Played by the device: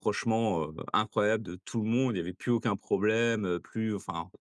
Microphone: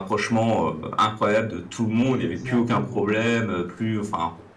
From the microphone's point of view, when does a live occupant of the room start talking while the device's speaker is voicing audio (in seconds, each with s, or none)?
2.0 s